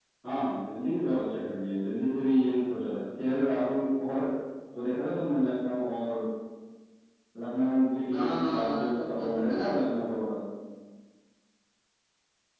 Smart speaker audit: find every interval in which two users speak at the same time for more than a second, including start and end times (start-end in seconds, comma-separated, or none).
8.1-9.9